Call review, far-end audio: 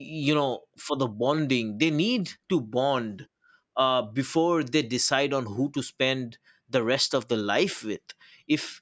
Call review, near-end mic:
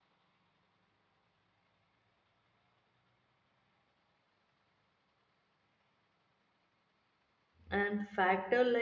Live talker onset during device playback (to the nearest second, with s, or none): 8 s